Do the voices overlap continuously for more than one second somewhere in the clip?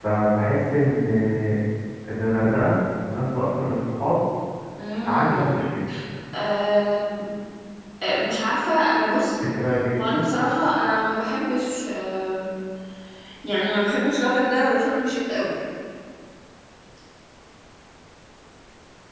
No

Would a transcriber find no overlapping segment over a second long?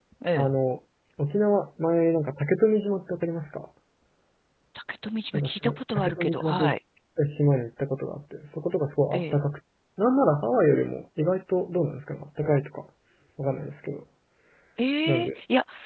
No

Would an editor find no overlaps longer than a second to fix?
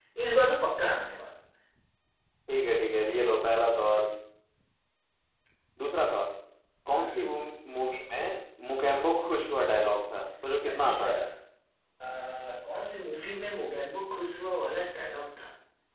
Yes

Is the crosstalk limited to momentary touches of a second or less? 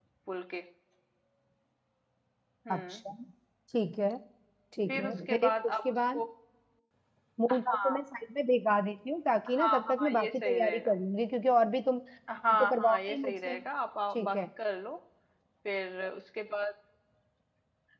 No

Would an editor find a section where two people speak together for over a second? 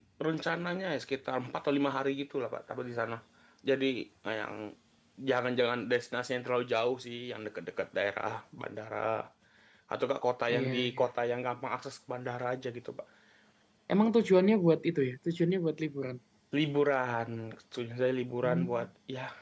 No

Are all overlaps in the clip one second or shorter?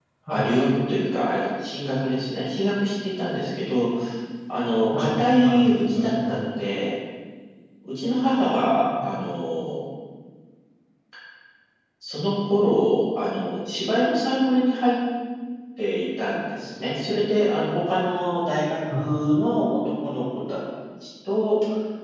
No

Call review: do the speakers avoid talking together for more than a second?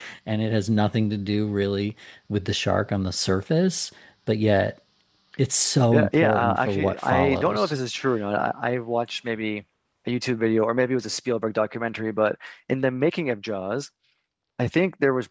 No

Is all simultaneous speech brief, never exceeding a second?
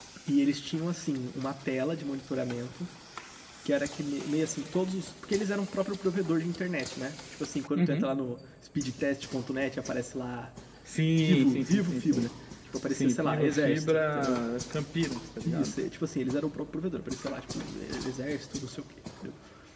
No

